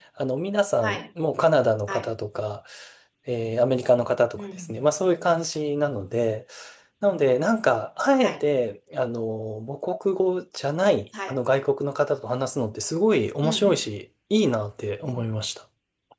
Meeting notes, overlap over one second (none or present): none